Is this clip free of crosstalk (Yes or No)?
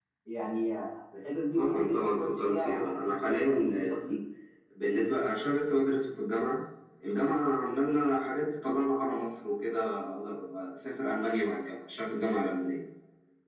No